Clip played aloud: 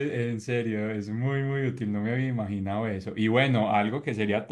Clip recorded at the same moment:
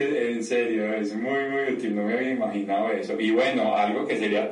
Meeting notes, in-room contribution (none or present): none